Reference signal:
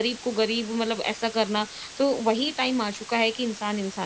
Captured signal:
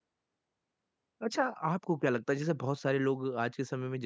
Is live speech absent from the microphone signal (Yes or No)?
No